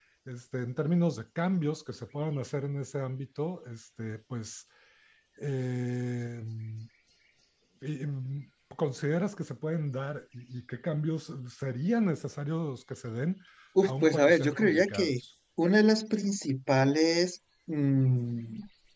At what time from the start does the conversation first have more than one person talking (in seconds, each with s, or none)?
13.8 s